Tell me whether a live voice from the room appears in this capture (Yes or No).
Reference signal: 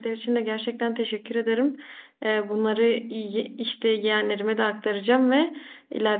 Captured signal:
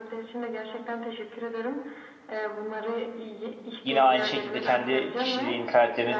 Yes